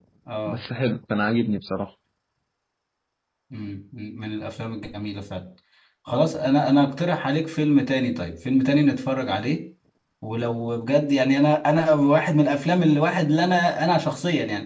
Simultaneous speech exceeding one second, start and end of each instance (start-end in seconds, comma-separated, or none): none